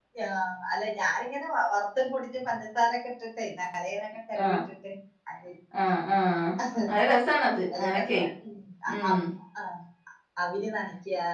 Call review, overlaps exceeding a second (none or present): none